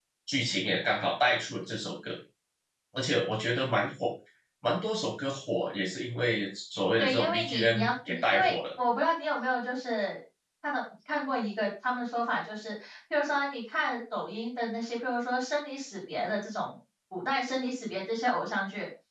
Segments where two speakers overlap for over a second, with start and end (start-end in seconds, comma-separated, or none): 7.0-8.5